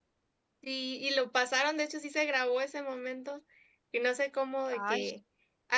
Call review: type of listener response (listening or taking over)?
listening